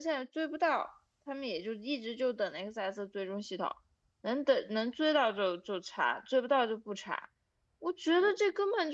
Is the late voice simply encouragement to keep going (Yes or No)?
Yes